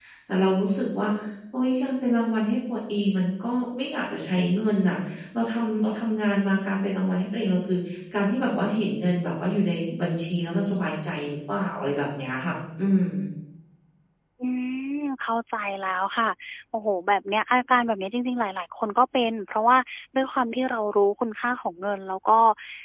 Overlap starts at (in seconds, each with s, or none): none